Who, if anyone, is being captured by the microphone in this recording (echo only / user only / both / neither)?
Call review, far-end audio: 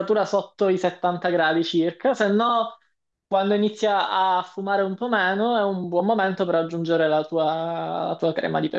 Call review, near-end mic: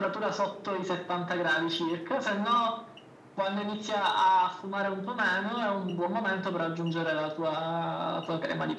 echo only